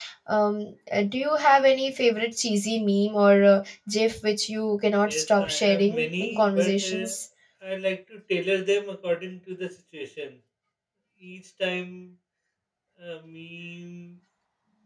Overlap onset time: 5.1 s

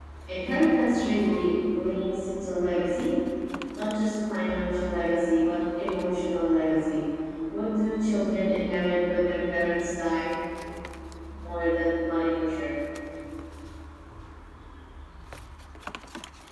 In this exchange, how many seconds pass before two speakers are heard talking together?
none

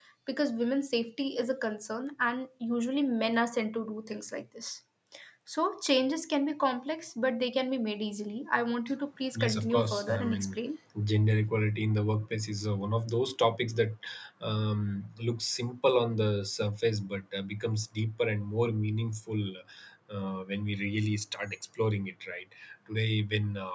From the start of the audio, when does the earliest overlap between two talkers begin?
9.3 s

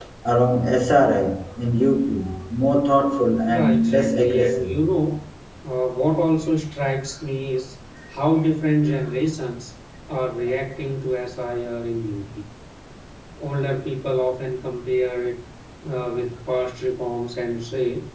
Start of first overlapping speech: 3.5 s

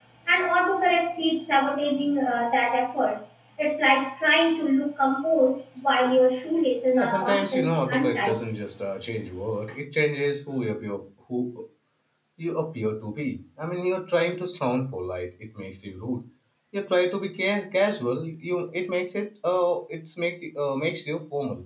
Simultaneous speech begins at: 6.9 s

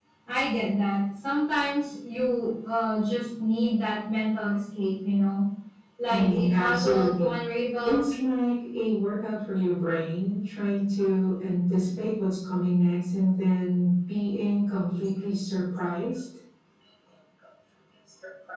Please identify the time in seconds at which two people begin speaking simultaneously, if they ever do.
6.1 s

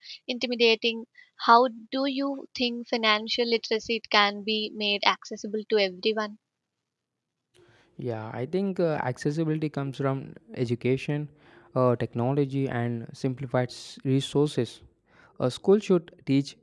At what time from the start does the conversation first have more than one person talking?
none

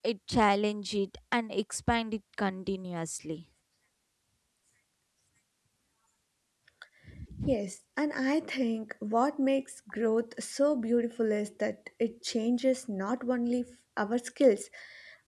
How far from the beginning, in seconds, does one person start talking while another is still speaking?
none

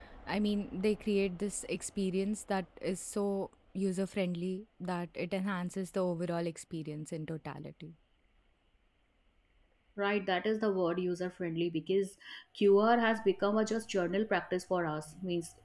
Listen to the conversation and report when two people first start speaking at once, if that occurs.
none

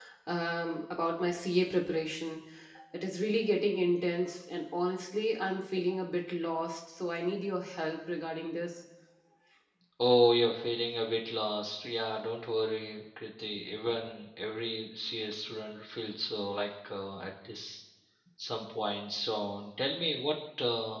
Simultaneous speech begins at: none

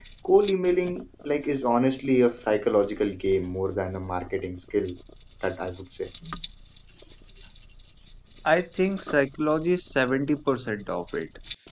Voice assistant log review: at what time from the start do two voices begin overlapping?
none

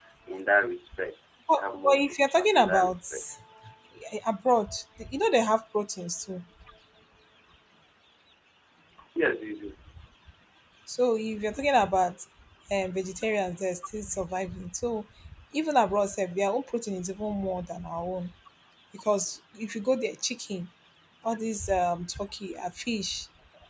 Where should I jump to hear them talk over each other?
1.5 s

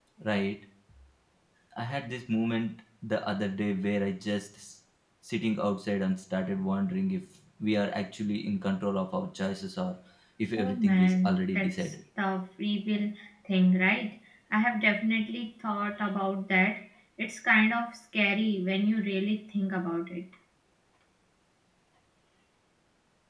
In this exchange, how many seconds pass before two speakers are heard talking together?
10.6 s

